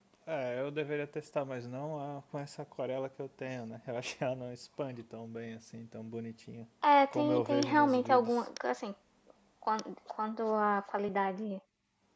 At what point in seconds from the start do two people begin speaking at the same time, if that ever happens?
7.1 s

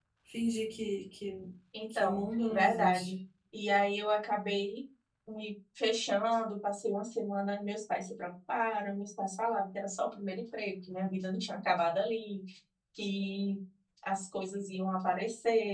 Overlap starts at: 1.9 s

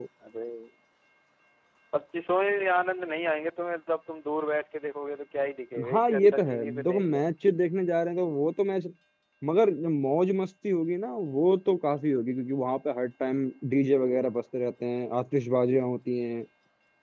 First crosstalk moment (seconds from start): 5.8 s

